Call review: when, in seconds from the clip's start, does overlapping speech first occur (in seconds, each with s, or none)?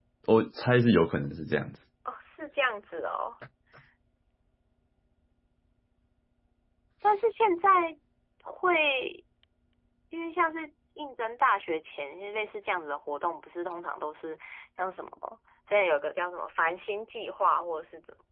none